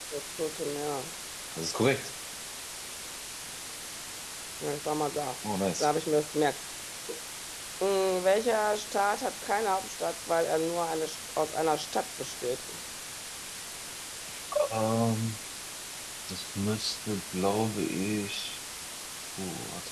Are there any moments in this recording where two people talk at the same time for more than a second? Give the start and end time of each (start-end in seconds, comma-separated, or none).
none